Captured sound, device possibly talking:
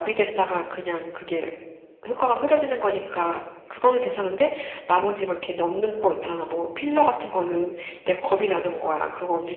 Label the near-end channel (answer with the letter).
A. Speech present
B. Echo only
B